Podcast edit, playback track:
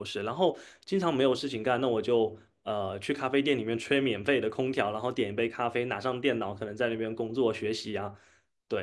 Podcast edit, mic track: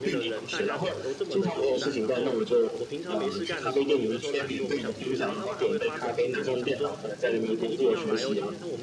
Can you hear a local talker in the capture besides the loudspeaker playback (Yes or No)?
Yes